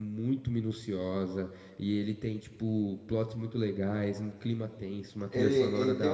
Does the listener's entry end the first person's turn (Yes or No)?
Yes